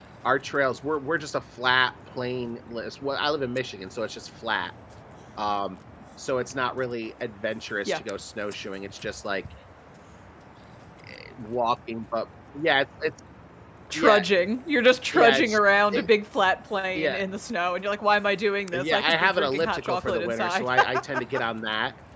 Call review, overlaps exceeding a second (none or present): present